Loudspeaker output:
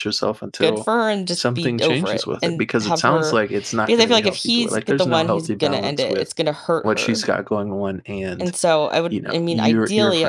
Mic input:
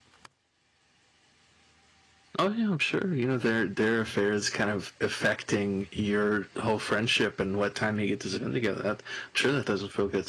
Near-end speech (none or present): present